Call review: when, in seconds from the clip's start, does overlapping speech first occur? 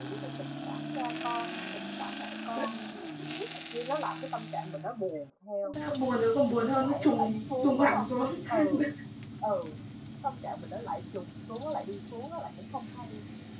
7 s

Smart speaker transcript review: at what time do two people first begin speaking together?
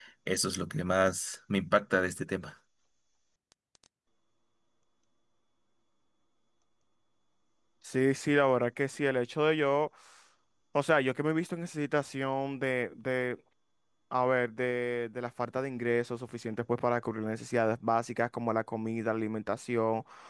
none

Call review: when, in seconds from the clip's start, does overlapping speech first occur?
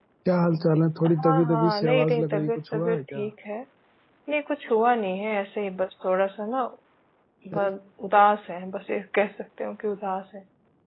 1 s

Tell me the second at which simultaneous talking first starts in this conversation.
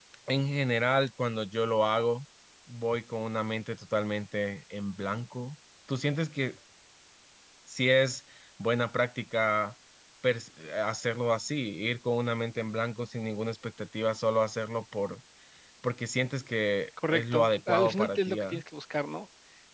17 s

